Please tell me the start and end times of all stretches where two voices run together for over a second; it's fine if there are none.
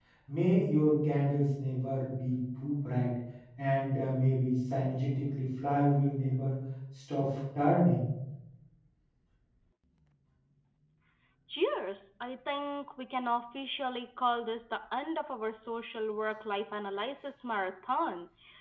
none

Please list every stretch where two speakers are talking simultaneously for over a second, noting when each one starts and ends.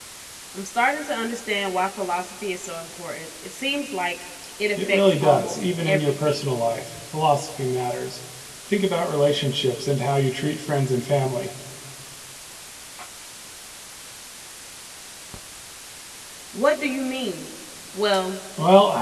4.8-6.4

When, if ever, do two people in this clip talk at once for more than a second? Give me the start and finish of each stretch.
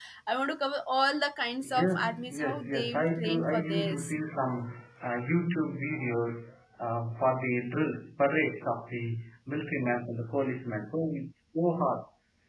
1.6-4.1

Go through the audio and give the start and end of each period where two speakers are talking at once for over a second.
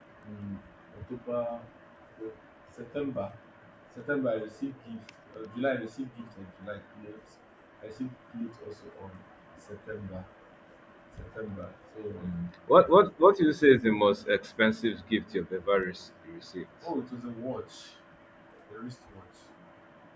none

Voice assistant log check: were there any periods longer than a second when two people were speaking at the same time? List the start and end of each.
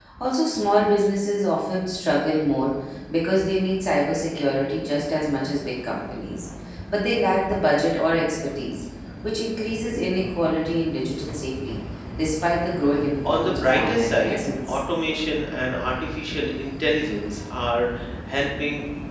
13.2-14.8

